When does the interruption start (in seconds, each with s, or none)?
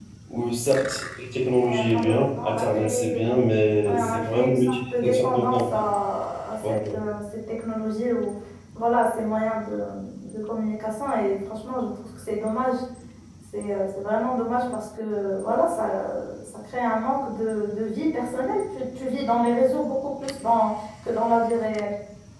1.6 s